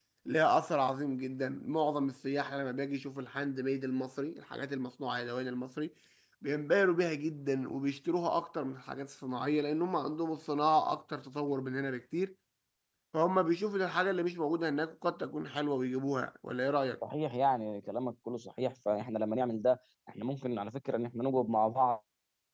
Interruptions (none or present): none